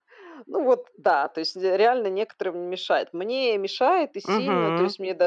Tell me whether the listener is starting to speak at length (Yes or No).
No